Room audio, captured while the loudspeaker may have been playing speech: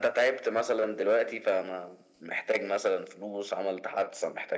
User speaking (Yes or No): No